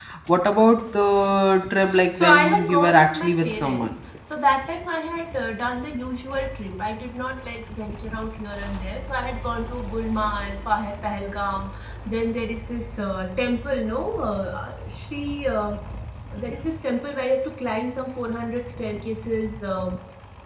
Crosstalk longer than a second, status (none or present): present